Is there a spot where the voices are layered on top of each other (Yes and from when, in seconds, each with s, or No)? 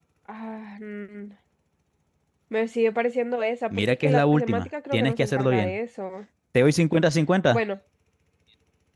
Yes, from 3.7 s